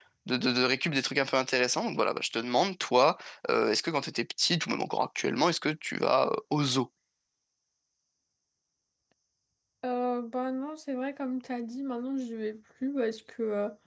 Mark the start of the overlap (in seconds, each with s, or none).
none